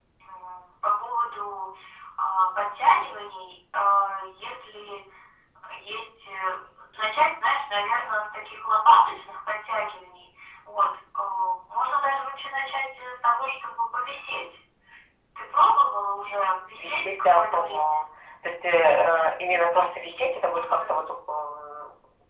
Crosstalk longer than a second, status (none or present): present